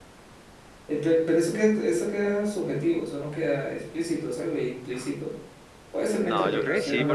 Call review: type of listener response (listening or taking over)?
taking over